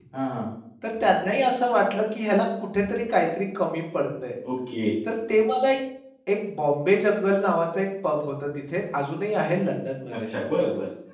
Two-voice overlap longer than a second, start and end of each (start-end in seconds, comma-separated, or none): none